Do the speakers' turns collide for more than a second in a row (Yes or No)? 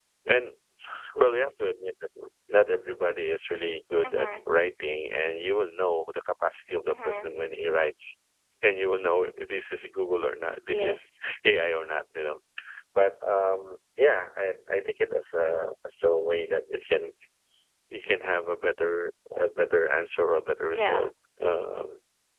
No